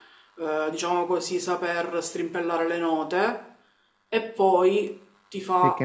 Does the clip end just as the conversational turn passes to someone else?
Yes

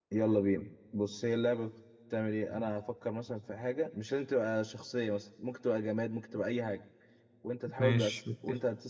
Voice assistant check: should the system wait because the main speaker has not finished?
Yes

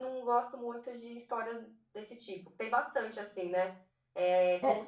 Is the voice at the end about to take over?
No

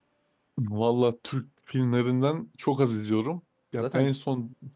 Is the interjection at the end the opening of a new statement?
No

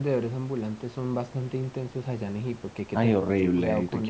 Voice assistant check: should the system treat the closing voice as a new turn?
Yes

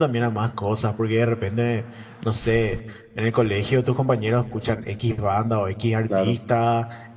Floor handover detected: No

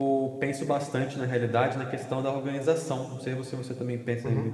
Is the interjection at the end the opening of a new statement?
Yes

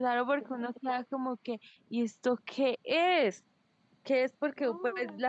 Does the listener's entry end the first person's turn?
No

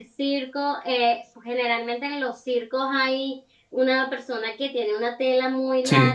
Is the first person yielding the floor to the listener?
No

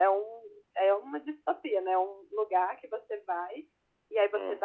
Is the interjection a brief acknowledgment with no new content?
Yes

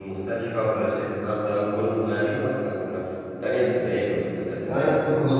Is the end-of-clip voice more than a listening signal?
Yes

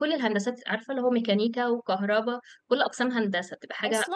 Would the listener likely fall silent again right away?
No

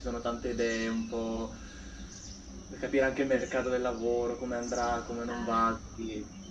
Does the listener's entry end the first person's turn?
No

